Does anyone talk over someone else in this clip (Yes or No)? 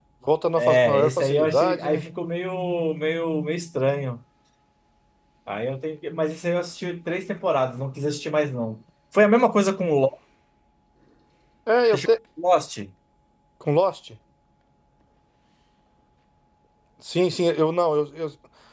Yes